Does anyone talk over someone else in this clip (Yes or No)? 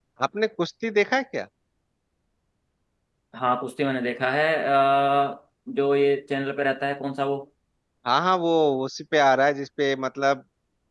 No